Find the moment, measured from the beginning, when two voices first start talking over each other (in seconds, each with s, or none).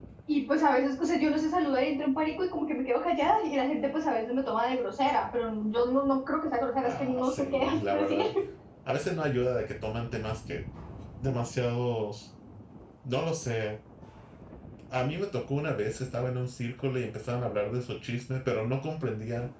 6.8 s